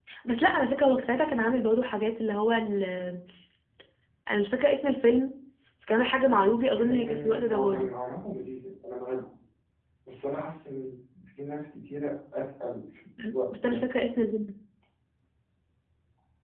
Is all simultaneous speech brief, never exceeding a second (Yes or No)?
No